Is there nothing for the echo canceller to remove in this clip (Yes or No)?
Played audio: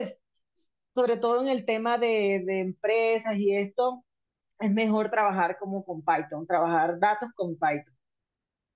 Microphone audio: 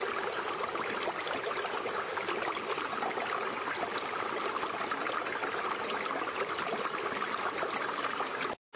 Yes